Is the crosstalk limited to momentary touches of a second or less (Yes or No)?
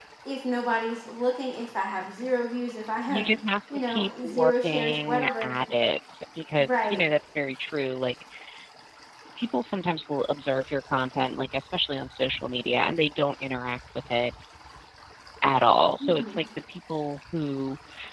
No